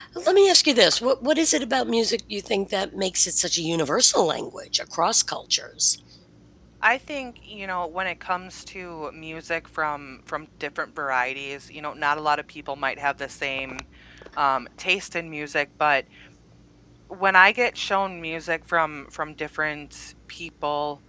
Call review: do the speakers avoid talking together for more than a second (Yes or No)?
Yes